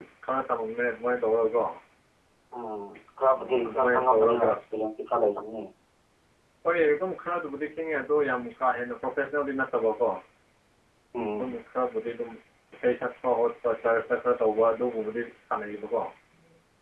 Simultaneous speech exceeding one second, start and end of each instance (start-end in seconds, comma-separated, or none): 3.3-4.5